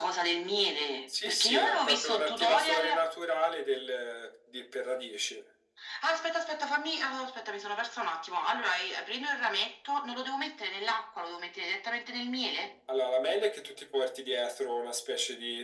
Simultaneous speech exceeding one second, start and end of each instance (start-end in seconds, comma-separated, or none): 1.2-3.0